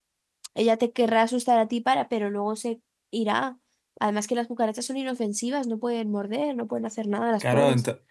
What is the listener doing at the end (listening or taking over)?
taking over